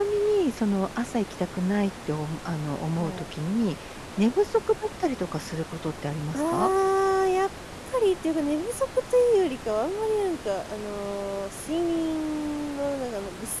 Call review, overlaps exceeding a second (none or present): none